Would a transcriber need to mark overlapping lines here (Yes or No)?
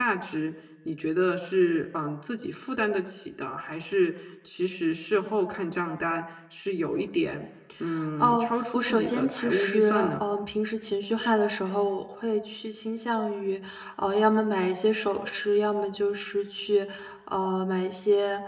Yes